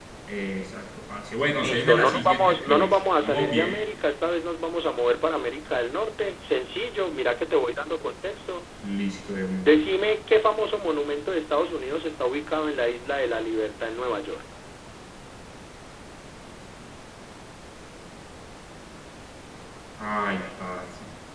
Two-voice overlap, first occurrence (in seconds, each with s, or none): 1.6 s